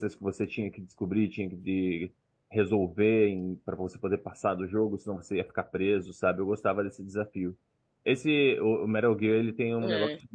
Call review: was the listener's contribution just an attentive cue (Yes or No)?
Yes